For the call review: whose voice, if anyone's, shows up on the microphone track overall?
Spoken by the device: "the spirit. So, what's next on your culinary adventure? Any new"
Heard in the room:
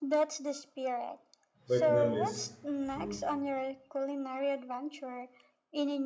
both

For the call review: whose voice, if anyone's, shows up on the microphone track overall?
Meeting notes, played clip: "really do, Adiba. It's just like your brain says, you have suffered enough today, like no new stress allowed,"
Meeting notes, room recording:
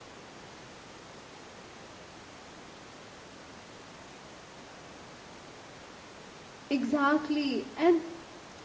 user only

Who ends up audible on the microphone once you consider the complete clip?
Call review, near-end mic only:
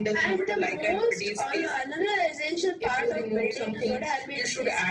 echo only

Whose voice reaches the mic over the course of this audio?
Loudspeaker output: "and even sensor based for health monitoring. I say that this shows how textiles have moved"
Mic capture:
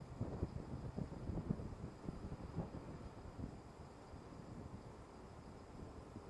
neither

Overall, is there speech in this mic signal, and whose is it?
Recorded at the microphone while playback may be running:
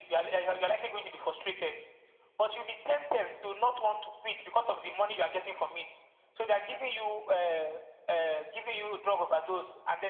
echo only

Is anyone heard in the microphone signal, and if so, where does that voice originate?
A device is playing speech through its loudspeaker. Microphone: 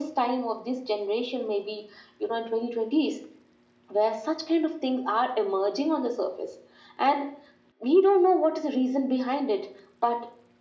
echo only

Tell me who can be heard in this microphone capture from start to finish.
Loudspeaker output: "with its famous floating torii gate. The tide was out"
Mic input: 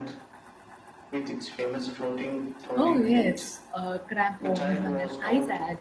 both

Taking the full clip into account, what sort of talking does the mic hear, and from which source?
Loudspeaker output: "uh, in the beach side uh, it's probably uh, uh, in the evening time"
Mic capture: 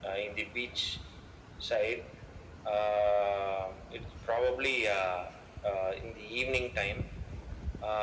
echo only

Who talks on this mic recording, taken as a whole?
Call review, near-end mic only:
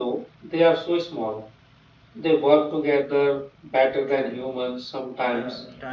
both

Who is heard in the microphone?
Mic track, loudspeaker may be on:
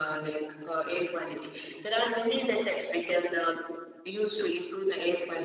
echo only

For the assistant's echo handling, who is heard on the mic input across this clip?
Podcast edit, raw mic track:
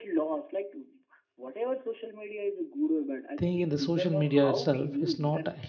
both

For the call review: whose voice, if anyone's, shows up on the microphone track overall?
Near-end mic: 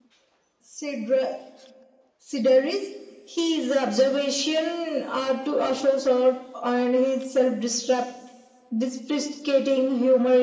echo only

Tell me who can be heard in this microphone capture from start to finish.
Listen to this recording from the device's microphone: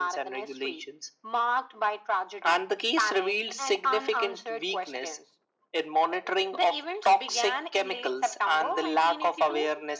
echo only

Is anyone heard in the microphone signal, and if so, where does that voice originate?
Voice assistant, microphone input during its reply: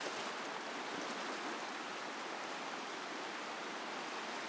neither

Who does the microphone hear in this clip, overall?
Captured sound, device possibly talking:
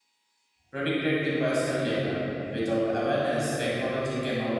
user only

